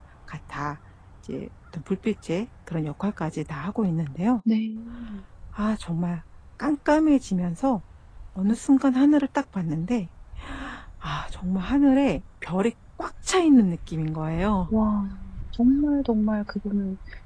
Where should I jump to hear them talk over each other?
none

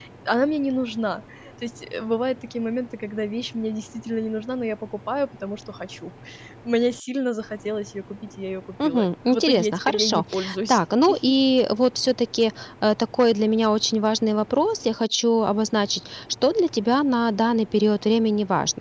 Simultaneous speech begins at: 8.8 s

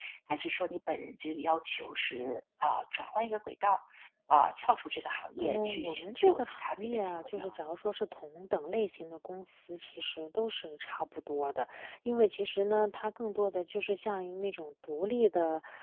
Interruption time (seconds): 5.4 s

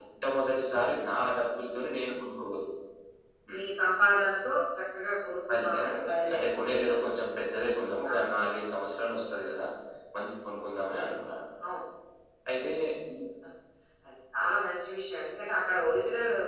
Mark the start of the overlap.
5.5 s

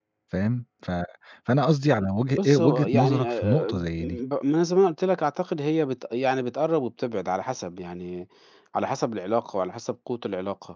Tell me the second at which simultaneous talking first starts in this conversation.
2.3 s

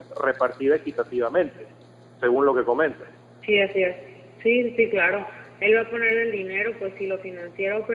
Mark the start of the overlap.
none

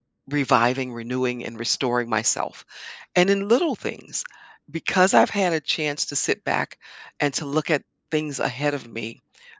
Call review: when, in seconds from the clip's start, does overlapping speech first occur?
none

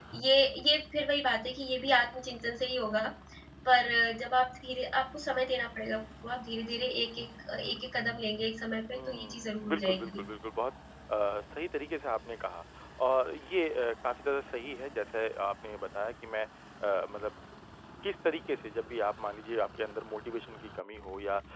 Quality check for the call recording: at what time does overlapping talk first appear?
8.9 s

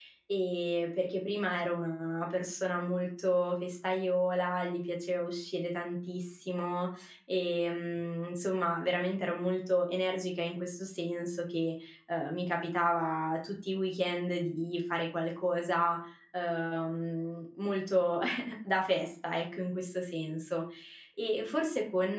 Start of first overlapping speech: none

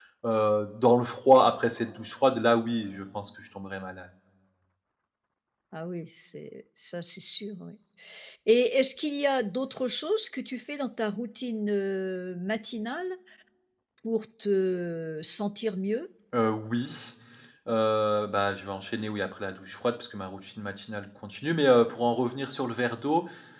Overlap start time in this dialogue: none

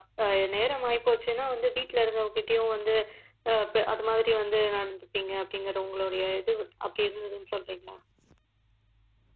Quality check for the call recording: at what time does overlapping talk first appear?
none

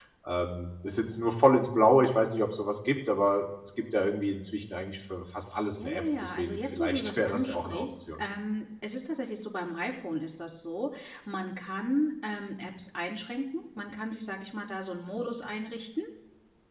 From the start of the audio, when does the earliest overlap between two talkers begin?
5.5 s

